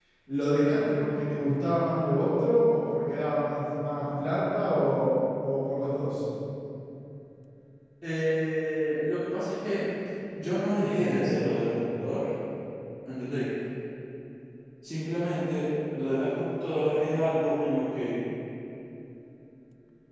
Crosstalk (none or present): none